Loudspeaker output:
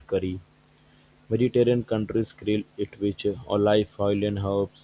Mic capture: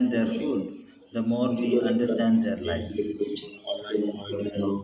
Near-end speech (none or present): present